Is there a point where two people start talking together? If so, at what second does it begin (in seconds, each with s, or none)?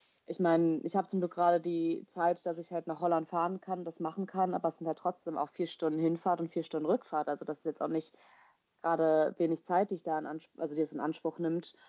none